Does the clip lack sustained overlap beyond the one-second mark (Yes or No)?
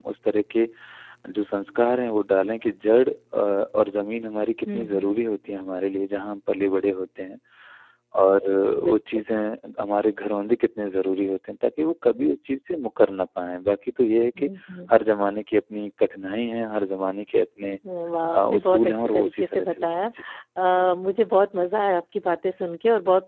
No